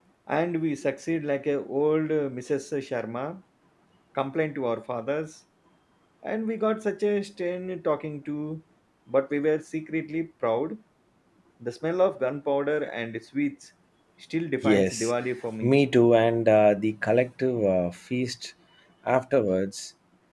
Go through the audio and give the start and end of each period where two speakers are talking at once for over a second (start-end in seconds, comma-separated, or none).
none